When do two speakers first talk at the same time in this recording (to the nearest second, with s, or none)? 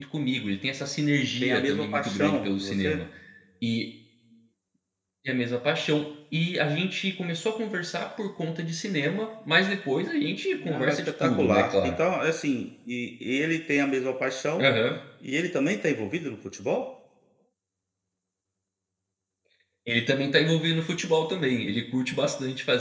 1 s